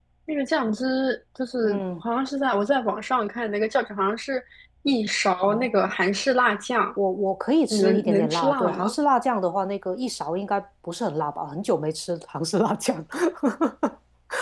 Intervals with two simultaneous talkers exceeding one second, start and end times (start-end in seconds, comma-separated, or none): 7.7-8.9